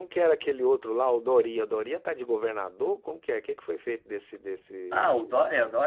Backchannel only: No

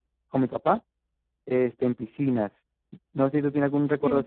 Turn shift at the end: No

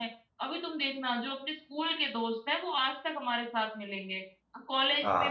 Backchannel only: Yes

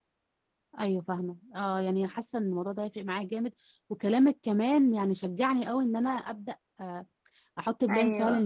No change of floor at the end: Yes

